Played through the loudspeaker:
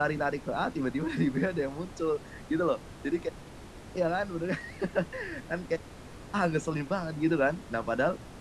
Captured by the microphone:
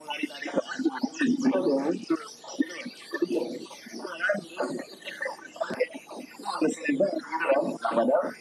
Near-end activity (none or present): none